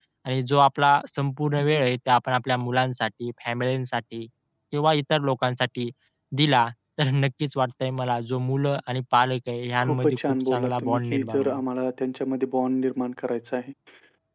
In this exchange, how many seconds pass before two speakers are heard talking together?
9.8 s

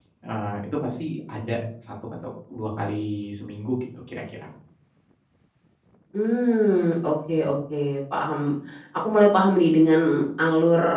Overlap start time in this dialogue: none

